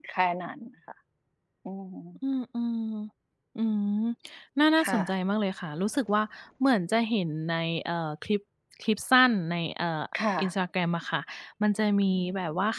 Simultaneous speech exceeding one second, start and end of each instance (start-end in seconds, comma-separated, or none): none